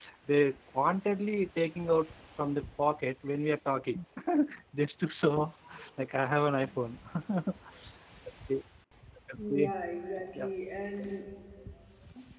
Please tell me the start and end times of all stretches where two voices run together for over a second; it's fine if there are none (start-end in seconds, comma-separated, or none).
none